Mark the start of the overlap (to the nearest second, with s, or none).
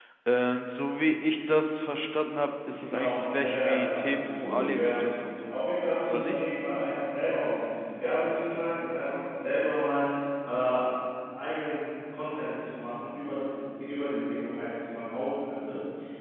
3 s